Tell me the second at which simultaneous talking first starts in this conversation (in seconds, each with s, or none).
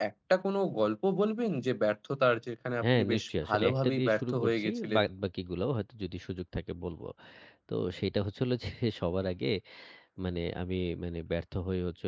2.8 s